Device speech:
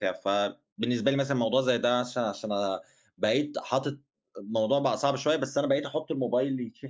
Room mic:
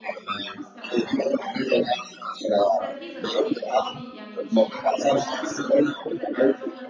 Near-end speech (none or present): present